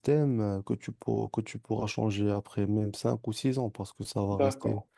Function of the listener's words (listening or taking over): taking over